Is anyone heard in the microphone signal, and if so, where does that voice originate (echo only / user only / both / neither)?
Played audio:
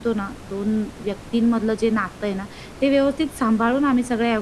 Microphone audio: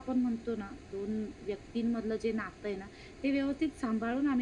echo only